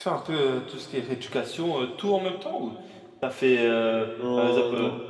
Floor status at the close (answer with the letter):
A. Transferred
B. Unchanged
B